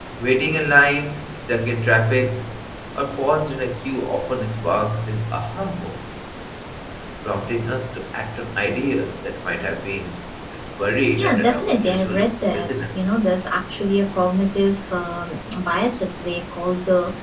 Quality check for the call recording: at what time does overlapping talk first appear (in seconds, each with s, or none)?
11.2 s